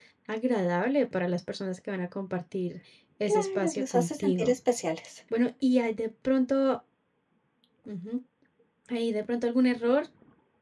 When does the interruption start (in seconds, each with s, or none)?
3.3 s